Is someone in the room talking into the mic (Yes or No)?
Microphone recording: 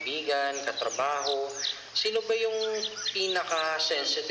No